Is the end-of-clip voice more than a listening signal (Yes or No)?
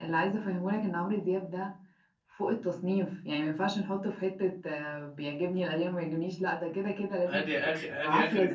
Yes